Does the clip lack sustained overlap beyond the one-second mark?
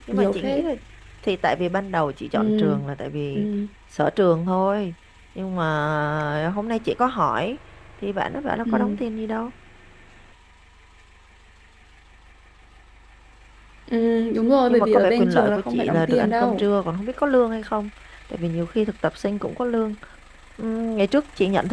No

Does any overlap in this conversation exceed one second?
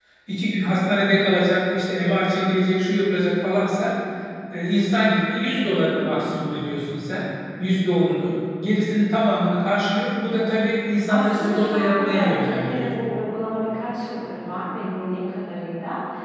Yes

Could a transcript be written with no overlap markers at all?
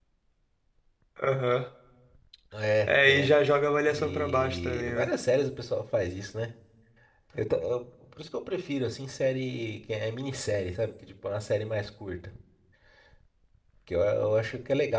No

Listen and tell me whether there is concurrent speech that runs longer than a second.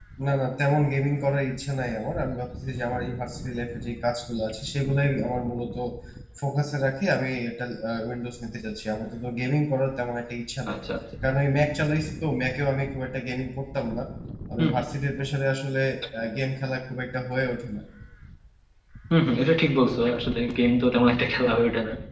No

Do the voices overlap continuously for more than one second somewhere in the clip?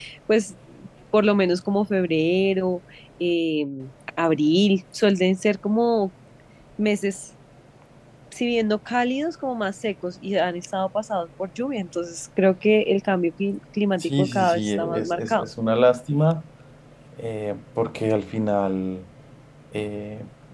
Yes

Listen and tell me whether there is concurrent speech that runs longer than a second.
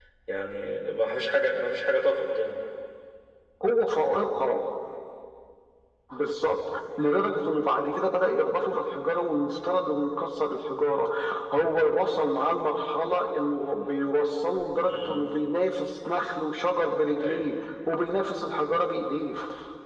No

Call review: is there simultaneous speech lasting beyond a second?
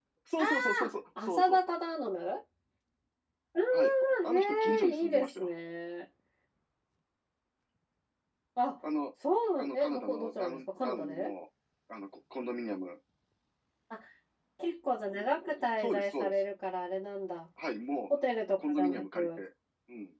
Yes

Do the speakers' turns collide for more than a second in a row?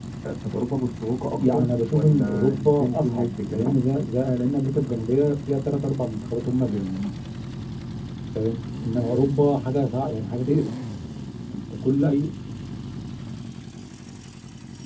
Yes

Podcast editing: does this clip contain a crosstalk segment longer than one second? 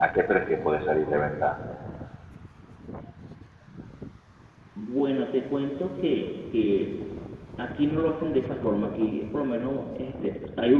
No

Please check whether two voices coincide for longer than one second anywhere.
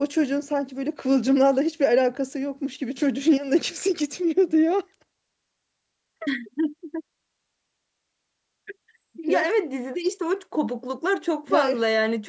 No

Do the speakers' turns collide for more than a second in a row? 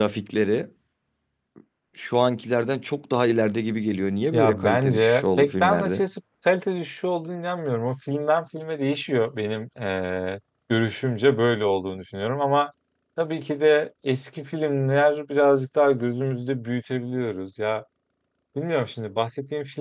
Yes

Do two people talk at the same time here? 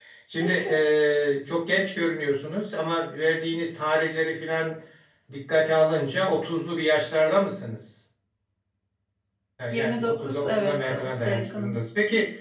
Yes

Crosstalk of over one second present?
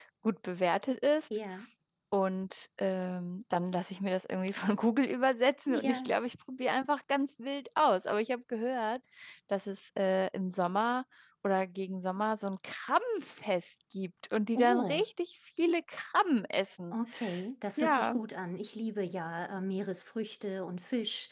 No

